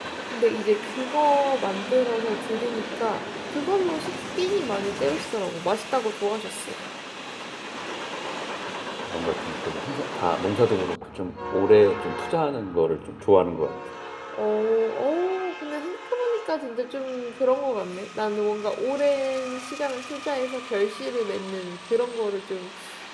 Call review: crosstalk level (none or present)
none